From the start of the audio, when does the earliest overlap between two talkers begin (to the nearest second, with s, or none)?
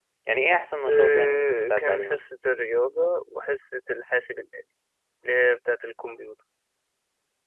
1 s